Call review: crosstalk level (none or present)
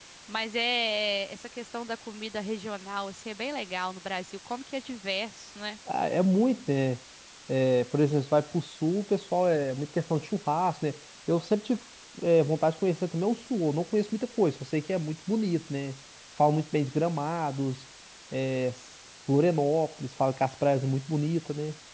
none